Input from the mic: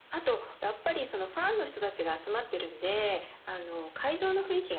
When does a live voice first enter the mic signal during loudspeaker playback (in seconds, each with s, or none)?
none